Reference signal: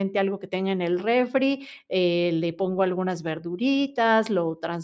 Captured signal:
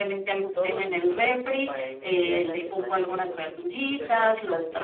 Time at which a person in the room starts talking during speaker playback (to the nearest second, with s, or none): 1 s